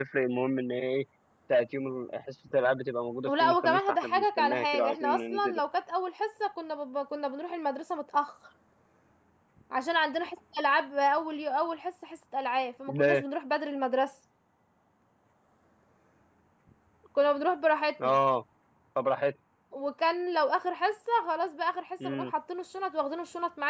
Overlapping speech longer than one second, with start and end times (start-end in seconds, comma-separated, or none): 3.3-5.5